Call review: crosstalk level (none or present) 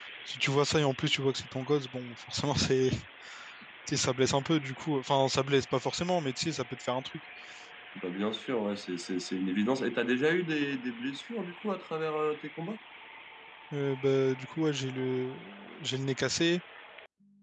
none